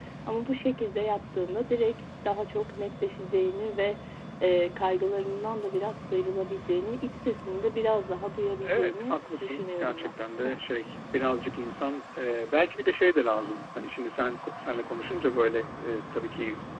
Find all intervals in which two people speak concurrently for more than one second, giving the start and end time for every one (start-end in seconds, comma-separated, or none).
8.6-10.1